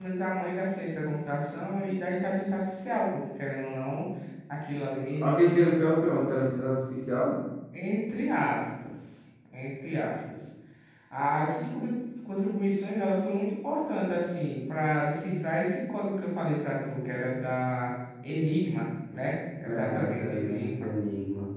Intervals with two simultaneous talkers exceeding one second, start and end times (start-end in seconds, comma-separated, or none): 19.6-20.9